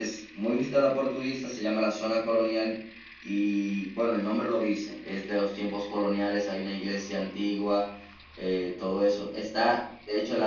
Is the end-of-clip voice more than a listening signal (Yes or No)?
No